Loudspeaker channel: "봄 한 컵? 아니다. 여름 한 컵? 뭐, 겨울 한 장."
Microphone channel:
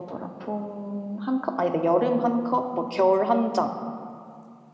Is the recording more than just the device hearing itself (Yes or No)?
No